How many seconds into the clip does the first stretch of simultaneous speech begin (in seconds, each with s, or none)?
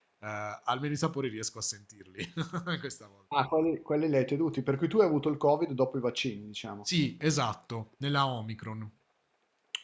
none